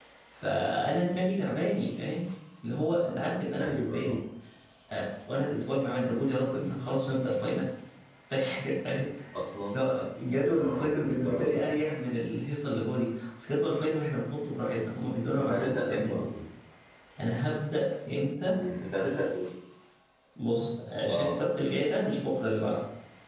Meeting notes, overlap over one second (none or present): present